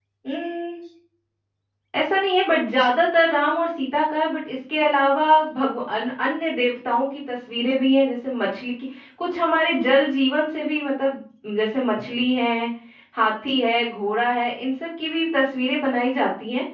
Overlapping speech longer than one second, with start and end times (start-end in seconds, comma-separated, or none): none